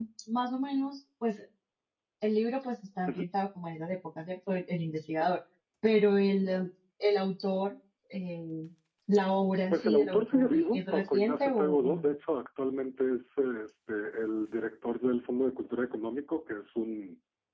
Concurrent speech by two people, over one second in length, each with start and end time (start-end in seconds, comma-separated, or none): 9.7-12.0